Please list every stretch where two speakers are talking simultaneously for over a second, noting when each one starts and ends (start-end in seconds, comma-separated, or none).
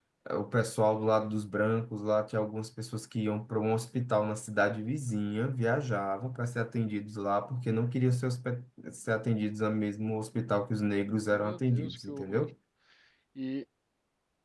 11.3-12.5